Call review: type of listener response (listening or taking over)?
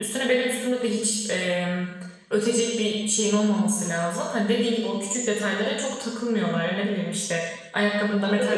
listening